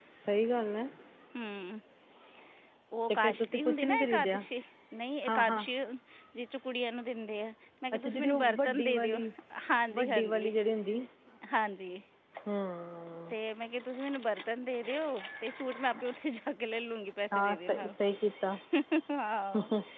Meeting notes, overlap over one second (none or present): present